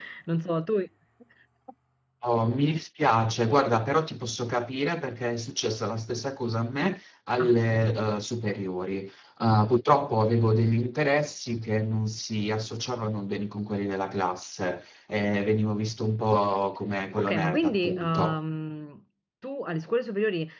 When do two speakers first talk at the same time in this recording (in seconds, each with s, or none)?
17.2 s